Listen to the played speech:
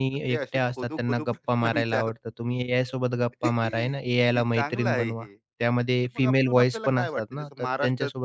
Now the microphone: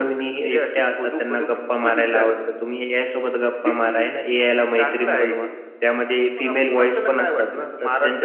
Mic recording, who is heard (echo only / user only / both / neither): echo only